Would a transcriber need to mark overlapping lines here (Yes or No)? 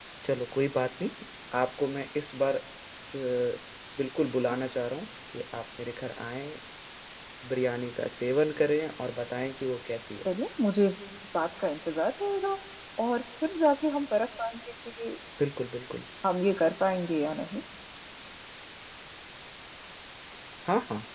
No